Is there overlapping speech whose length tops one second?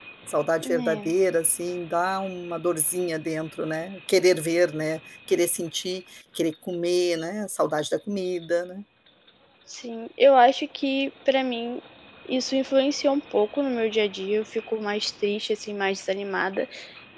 No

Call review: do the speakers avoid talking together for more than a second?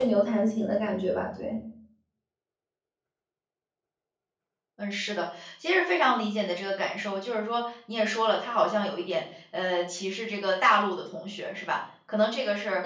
Yes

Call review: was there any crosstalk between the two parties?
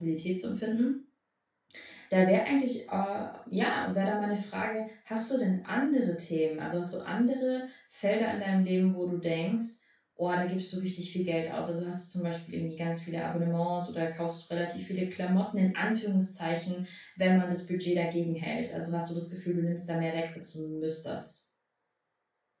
No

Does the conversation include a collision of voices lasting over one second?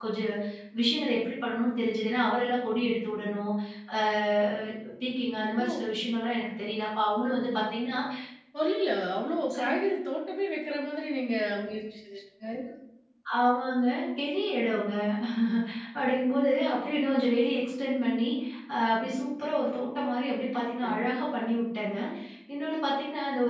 No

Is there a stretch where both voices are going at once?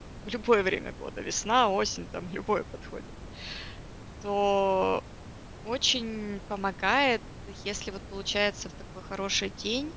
No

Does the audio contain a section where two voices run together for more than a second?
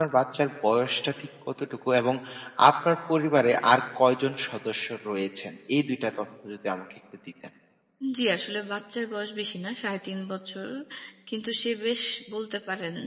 No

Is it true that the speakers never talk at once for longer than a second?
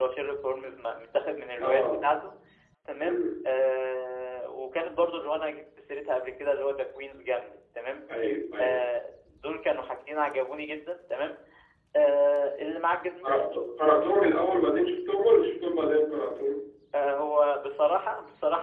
Yes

